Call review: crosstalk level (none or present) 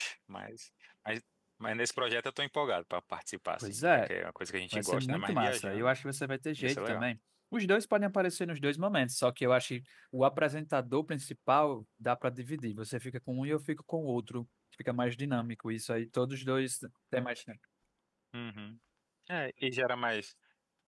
present